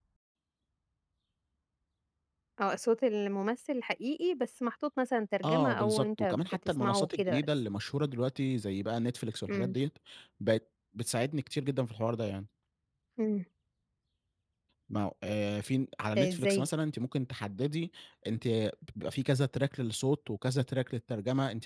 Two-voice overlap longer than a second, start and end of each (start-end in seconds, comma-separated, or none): 5.4-7.5